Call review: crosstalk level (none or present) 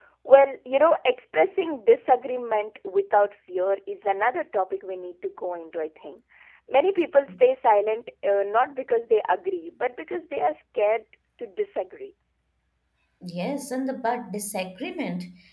none